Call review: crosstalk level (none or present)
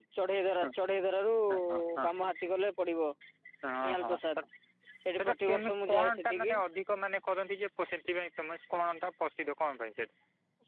present